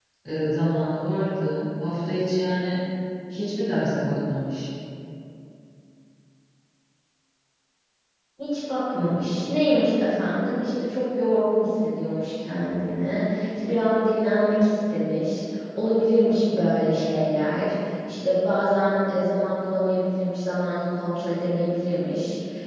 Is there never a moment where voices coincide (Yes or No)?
Yes